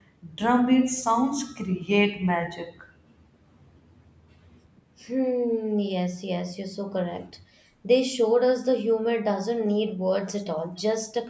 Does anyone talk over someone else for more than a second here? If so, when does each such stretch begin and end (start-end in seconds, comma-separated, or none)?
none